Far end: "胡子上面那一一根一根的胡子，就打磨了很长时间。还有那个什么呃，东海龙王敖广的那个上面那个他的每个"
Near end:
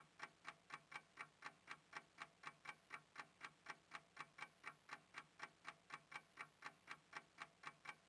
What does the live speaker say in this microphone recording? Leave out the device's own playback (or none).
none